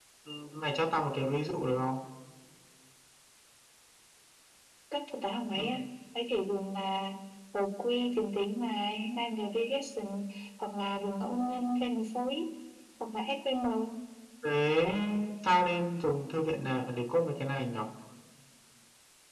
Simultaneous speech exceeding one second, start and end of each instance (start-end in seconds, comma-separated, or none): none